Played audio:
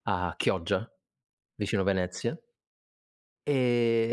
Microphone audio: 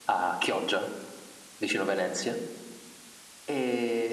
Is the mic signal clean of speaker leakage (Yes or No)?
No